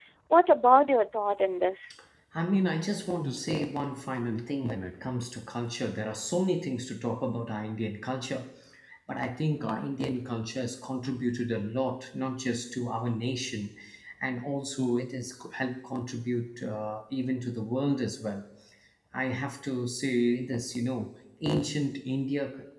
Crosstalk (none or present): none